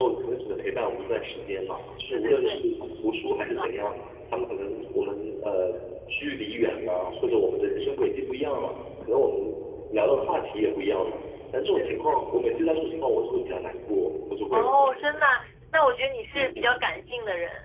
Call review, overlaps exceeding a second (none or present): none